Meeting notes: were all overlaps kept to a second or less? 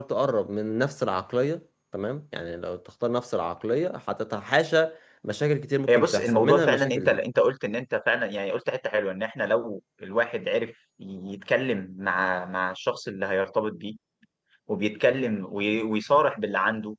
No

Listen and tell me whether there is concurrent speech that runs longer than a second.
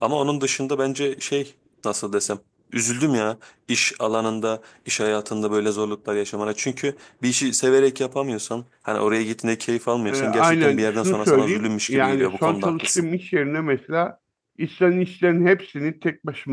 Yes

